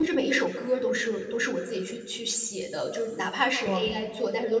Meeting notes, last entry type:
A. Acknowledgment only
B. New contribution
A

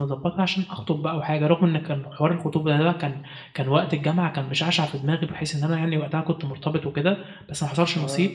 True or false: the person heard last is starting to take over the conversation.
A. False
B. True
A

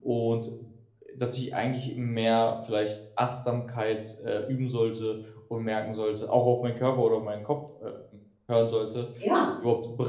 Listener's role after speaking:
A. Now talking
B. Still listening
B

